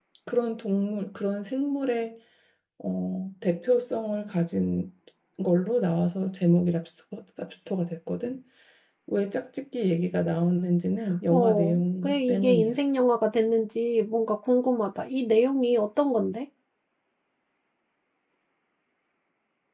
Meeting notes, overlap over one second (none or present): present